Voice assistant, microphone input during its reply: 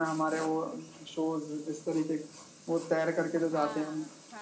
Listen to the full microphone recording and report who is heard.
both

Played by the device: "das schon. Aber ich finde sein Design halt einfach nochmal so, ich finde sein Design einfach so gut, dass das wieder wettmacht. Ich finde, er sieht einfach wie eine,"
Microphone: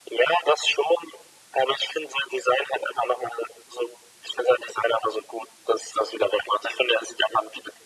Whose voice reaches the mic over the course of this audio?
echo only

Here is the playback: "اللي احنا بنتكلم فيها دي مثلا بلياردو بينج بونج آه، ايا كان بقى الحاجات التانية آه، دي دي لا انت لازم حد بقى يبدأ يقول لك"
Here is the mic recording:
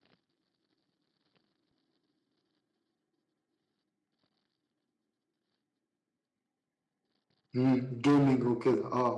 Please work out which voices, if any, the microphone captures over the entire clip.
user only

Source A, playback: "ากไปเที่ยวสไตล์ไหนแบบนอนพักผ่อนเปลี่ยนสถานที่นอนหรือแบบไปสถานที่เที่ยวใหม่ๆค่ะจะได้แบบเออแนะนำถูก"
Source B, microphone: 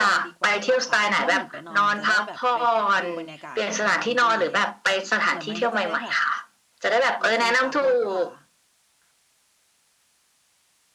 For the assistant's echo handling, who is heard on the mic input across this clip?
both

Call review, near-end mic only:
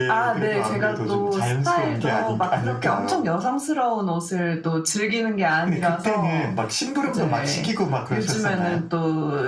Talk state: echo only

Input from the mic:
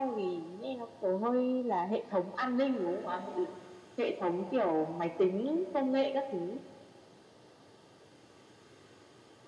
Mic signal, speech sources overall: echo only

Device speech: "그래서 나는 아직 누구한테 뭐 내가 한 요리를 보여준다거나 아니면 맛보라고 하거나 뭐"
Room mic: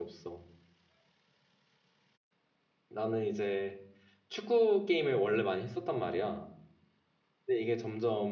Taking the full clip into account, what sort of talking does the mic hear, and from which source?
user only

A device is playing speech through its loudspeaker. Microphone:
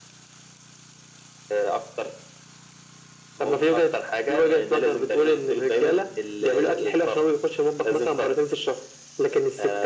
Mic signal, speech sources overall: echo only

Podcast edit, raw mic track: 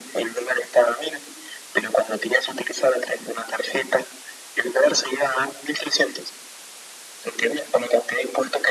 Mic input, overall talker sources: echo only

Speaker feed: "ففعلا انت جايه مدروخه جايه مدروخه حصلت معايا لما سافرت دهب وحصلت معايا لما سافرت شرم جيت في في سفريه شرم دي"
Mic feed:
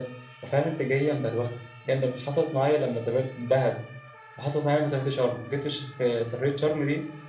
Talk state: echo only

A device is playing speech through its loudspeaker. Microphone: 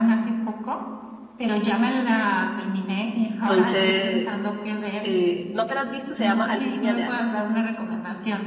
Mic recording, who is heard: both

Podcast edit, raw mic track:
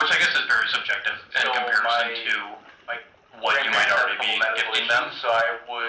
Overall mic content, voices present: echo only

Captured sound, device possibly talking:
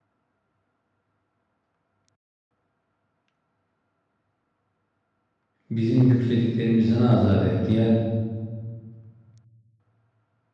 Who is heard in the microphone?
user only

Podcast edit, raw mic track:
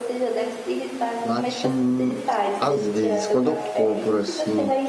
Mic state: both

